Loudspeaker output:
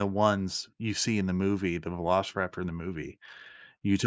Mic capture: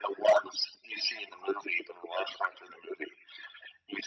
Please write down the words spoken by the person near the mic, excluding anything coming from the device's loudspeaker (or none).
none